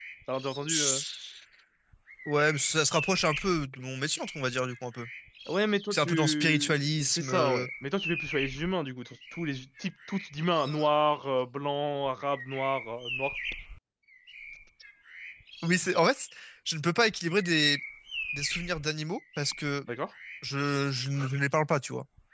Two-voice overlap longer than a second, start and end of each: 5.9-7.7

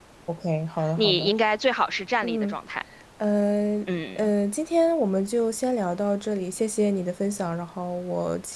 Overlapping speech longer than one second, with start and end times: none

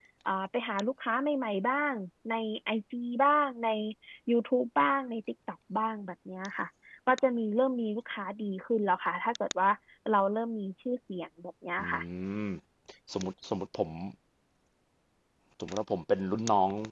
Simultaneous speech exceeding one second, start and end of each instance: none

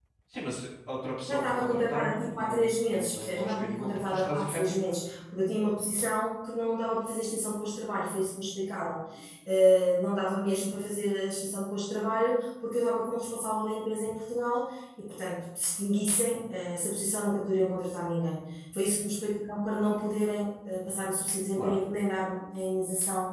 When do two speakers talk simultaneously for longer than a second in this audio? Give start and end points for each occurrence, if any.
1.3-5.0

